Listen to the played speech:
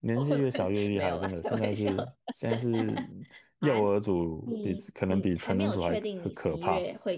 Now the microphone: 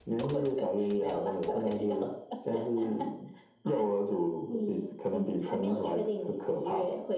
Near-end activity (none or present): none